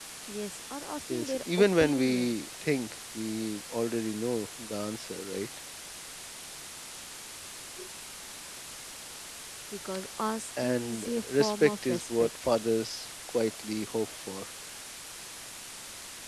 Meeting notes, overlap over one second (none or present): present